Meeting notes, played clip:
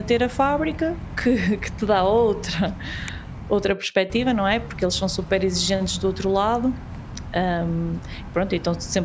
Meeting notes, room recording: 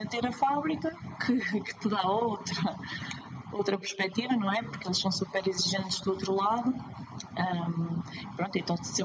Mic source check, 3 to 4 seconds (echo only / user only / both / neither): echo only